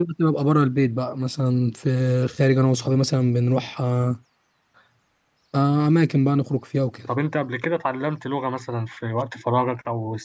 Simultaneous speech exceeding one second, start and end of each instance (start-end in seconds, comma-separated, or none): none